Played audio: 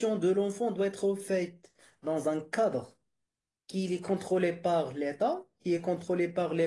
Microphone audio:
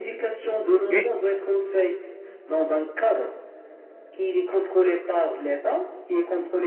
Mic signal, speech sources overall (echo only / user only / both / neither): both